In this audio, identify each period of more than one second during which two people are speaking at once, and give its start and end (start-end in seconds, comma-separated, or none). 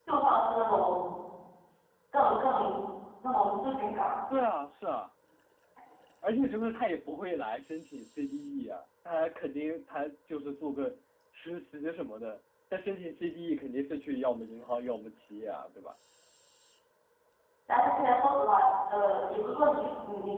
none